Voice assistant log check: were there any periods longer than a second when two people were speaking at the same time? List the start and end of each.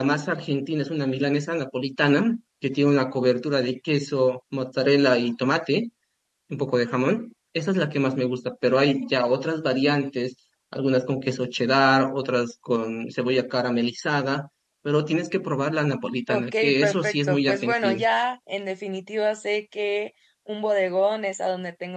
16.3-18.1

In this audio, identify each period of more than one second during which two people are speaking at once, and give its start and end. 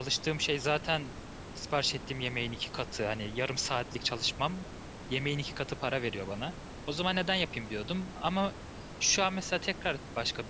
none

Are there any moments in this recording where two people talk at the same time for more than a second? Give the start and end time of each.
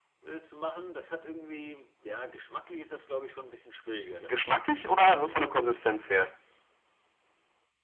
4.2-5.5

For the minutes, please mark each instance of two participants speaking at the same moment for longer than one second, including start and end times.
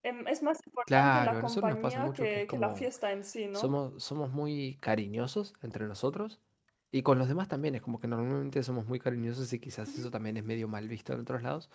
0.9-2.9

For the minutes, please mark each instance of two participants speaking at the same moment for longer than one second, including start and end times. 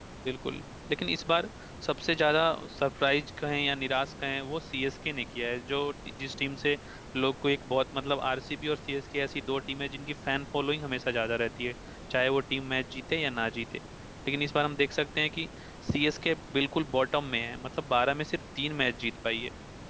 none

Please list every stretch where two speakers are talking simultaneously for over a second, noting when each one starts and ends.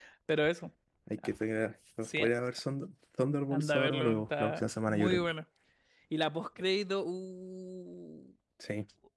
3.5-5.2

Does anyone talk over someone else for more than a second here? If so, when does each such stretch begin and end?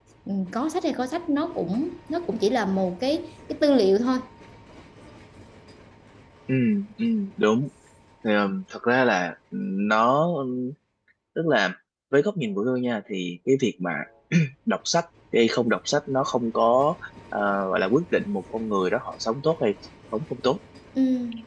none

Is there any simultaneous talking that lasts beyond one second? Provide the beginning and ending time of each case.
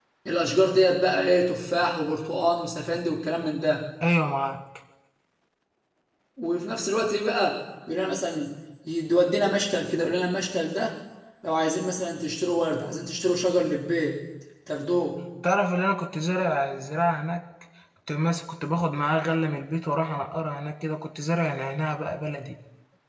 none

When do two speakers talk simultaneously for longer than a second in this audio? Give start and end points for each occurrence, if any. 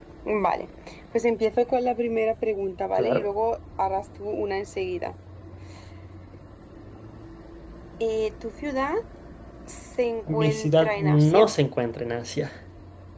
10.3-11.5

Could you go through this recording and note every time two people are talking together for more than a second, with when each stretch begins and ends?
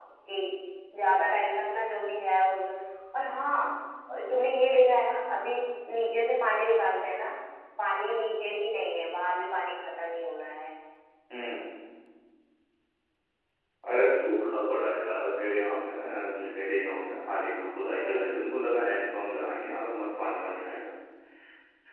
none

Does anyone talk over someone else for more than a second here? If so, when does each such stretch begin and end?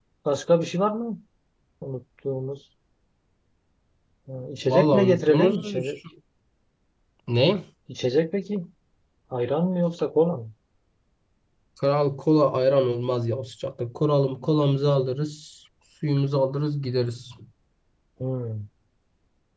4.7-5.9

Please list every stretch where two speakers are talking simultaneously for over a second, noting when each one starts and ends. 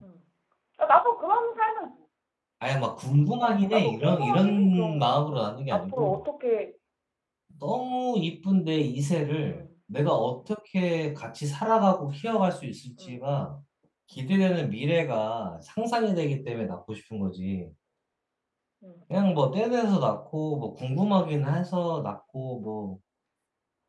3.7-5.3

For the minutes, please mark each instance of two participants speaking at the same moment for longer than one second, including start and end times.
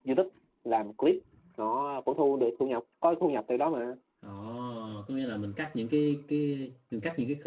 none

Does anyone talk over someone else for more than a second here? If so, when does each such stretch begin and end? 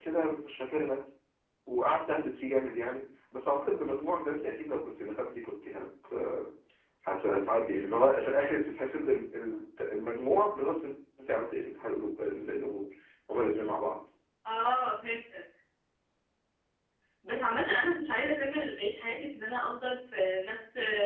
none

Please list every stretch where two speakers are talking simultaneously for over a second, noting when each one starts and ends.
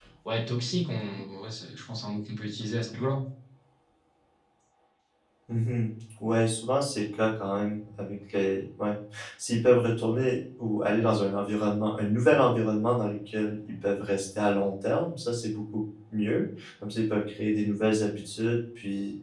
none

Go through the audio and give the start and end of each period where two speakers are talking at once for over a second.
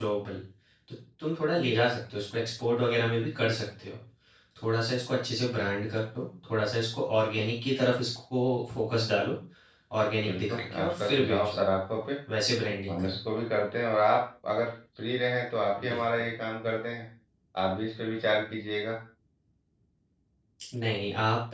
10.3-11.6

